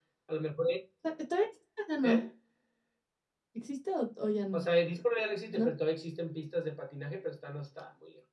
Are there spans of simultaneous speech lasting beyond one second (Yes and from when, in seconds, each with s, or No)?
No